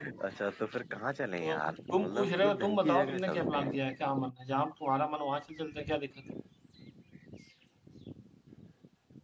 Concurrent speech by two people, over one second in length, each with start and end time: 1.4-3.7

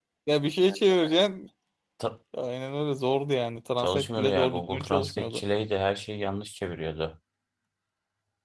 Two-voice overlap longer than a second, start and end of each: 3.8-5.4

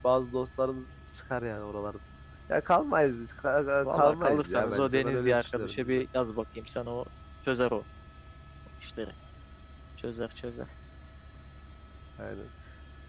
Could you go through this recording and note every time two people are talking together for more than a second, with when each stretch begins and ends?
3.8-6.0

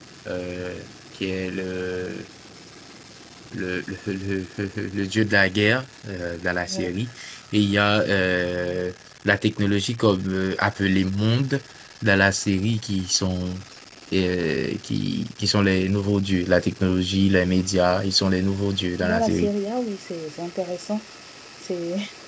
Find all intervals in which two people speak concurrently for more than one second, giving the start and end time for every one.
none

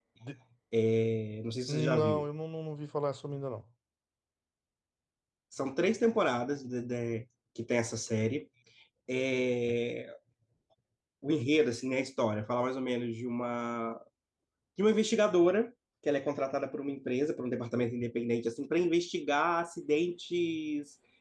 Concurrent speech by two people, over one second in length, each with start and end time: none

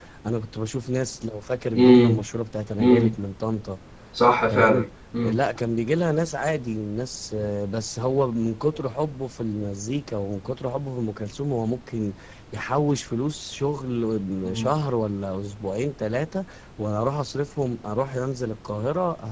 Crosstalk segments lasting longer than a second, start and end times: none

